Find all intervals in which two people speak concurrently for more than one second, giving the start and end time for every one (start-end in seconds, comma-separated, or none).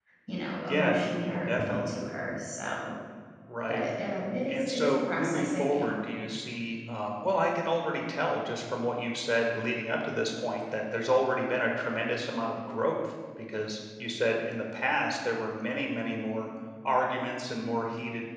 0.7-2.0, 4.5-5.9